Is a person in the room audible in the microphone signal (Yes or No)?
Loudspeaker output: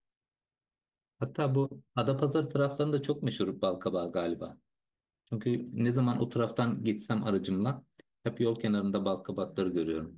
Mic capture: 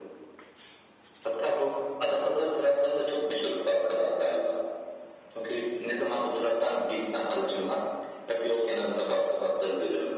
No